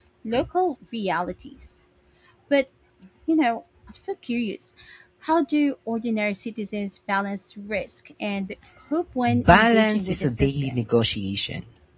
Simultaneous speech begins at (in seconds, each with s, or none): 9.3 s